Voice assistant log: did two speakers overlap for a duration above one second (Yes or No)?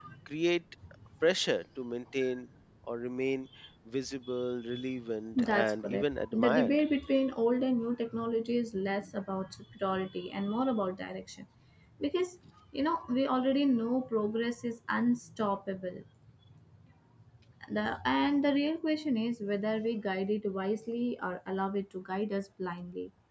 Yes